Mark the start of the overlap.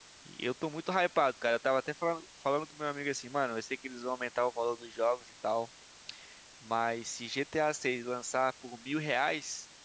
none

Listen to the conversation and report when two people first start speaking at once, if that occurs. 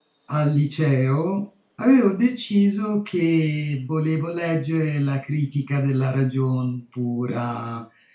none

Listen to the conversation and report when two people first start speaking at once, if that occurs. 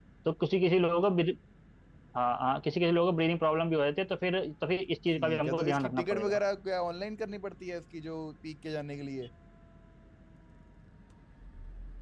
5 s

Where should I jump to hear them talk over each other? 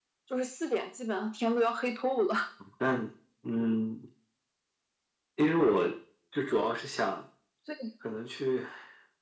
none

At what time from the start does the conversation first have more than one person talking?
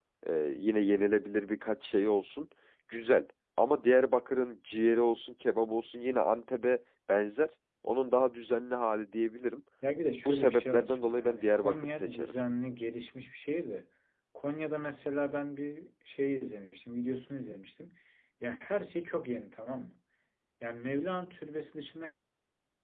10 s

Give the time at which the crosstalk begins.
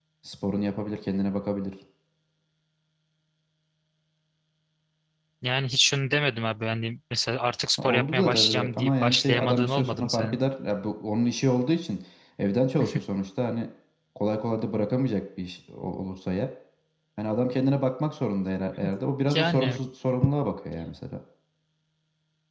8 s

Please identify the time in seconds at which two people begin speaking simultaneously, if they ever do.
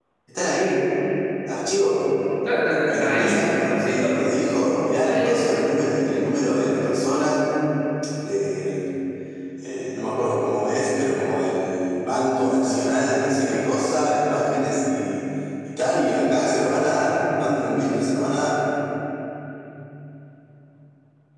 3 s

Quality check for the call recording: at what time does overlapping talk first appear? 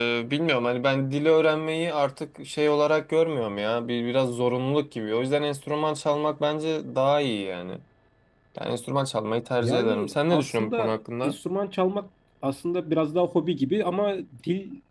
10 s

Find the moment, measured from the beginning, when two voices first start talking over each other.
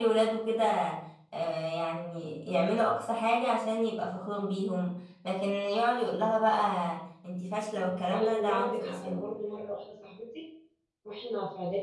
8 s

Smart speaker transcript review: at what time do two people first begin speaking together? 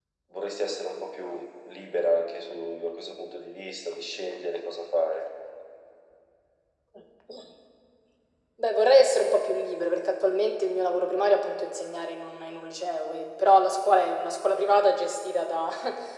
none

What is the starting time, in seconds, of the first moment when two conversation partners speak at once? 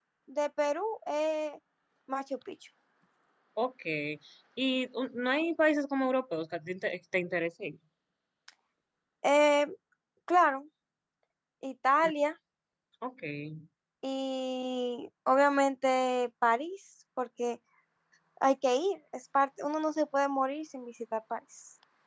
none

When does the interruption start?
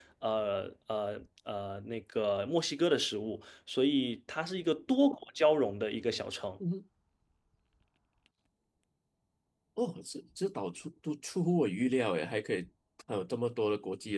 none

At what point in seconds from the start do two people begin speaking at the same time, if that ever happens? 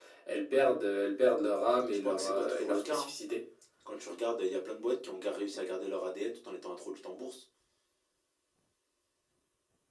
2 s

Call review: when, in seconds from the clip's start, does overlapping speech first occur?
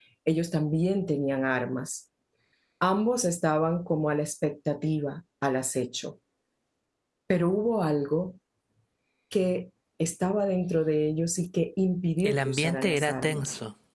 12 s

